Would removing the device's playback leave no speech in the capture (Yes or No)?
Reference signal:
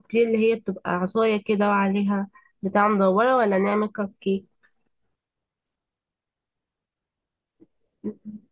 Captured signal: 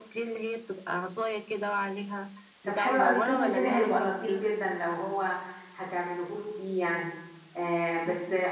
No